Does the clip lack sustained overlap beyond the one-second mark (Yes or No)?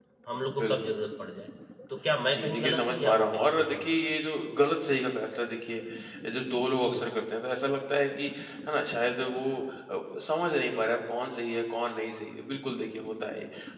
No